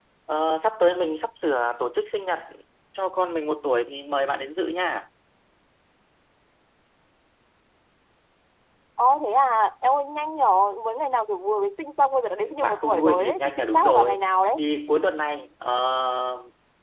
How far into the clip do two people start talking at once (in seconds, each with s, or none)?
12.3 s